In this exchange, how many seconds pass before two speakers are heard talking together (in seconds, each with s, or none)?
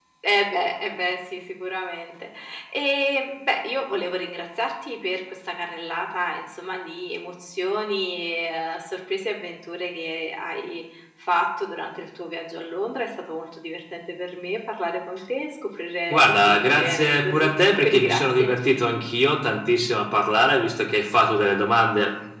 16.1 s